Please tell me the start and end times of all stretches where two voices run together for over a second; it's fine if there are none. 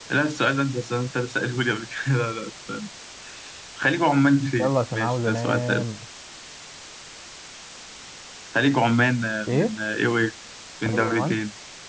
4.6-5.8

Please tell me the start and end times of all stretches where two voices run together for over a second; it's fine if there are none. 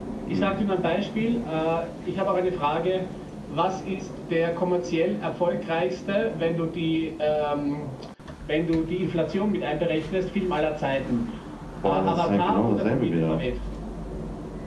11.8-13.4

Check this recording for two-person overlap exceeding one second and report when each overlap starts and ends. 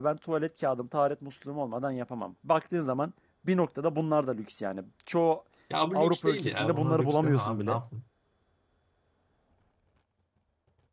5.9-7.8

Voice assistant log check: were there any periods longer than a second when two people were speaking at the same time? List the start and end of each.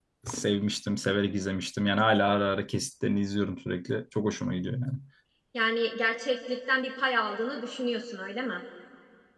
none

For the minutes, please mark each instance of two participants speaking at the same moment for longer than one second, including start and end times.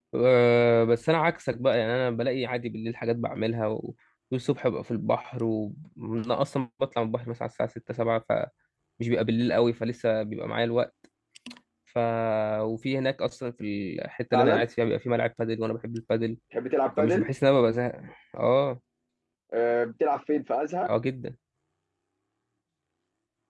none

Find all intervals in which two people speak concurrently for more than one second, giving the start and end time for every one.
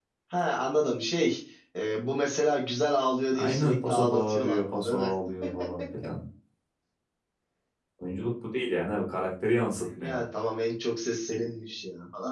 3.4-5.1

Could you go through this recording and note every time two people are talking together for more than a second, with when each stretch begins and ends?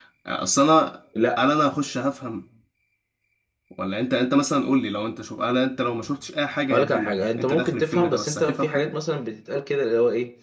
6.7-8.9

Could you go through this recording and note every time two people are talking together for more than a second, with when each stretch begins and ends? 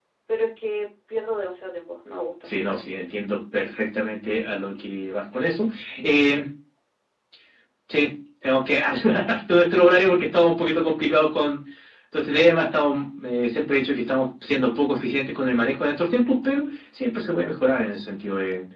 none

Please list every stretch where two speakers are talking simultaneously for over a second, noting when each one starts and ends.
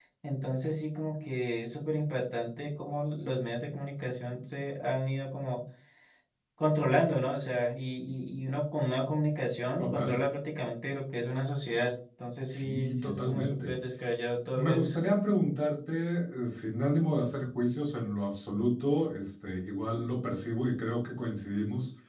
12.5-13.8

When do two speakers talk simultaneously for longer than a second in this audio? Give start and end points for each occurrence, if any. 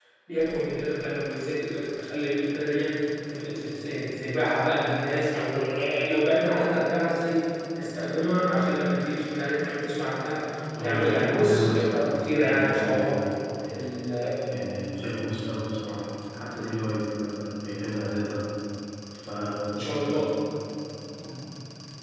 10.8-13.2

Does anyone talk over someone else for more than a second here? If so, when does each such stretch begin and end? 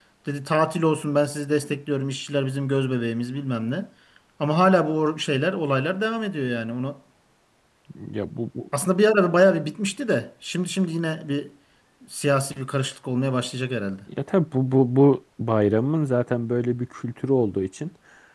none

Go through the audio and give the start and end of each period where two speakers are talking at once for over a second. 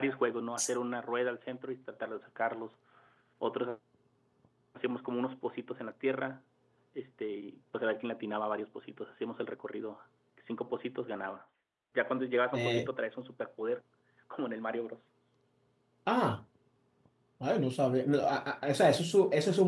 none

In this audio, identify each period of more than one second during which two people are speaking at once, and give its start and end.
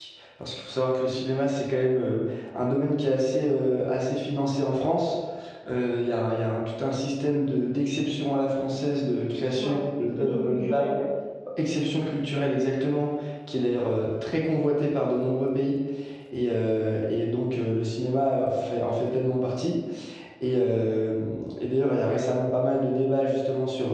9.6-10.9

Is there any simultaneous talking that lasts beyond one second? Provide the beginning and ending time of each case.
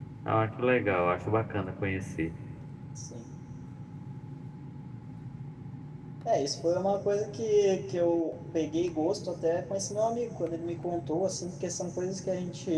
none

